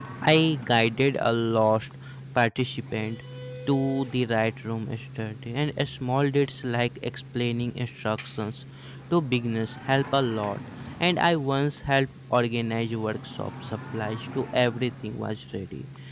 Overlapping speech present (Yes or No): No